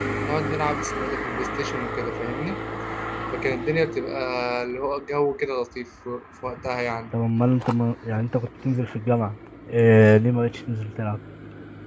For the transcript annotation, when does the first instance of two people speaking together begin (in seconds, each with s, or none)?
none